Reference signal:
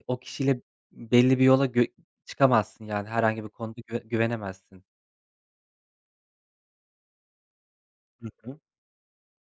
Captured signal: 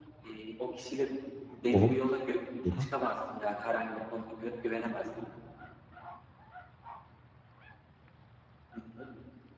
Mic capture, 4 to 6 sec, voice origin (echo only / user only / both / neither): echo only